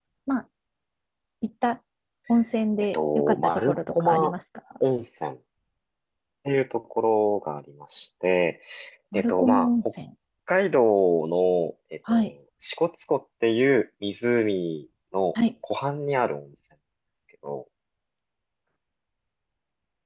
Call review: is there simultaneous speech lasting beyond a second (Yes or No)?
Yes